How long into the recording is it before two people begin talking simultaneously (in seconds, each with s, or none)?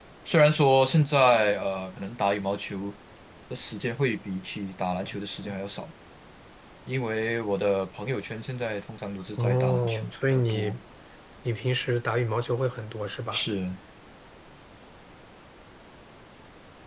9.4 s